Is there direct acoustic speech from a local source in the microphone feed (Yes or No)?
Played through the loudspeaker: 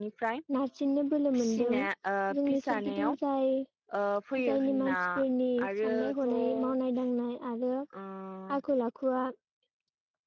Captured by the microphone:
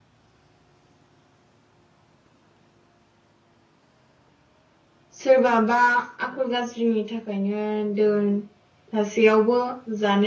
Yes